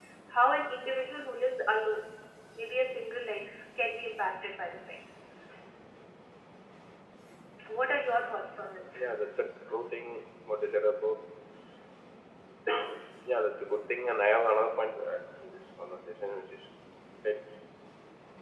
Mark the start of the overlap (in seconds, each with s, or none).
none